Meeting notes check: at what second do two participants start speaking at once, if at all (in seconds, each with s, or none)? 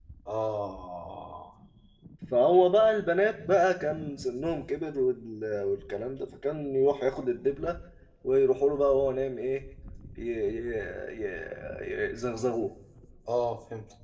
none